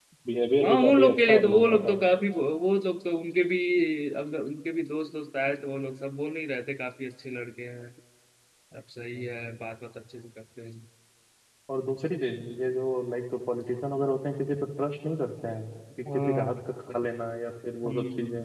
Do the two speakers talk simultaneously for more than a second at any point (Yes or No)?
Yes